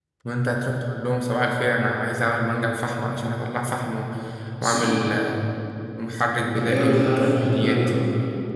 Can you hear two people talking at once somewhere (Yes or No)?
Yes